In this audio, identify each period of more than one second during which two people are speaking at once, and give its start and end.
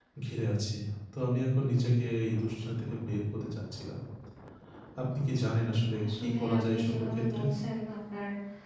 6.2-7.4

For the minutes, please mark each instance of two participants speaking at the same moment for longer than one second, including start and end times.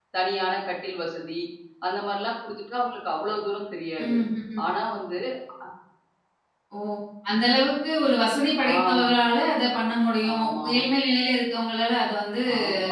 none

